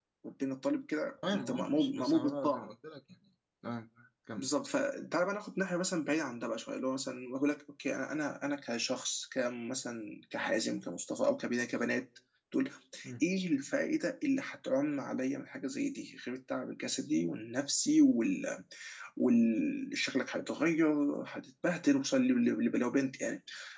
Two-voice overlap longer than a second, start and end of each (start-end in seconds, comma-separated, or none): 1.3-2.7